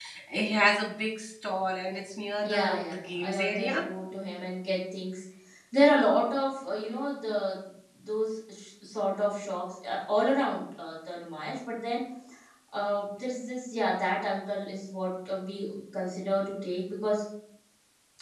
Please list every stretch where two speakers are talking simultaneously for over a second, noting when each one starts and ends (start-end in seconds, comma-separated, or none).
2.4-3.8